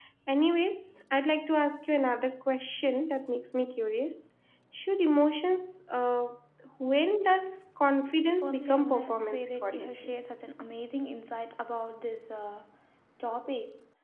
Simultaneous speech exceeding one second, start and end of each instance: 8.4-10.1

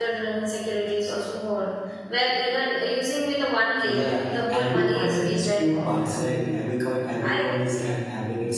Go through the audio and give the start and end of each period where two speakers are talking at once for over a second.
3.8-5.9

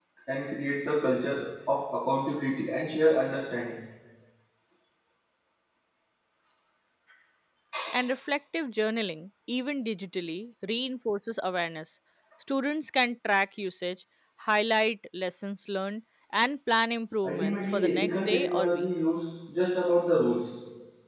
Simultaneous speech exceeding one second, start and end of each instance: 17.2-18.9

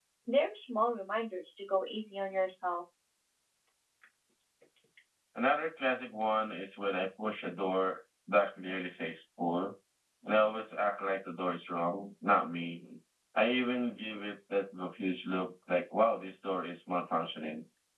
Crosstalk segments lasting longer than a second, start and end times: none

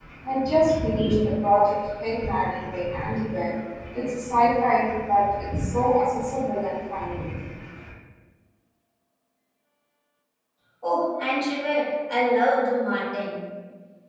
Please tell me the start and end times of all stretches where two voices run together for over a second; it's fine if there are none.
none

